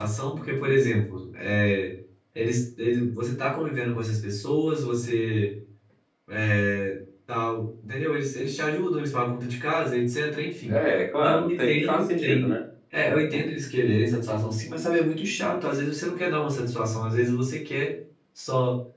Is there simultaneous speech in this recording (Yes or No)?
Yes